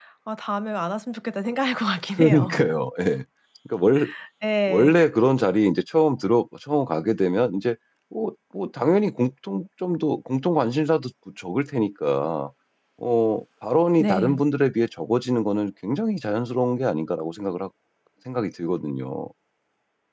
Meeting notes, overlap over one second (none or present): none